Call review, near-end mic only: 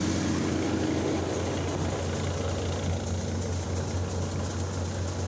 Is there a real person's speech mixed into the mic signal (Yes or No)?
No